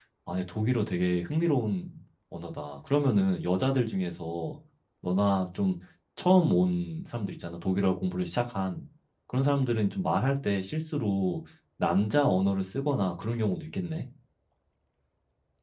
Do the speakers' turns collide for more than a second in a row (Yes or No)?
No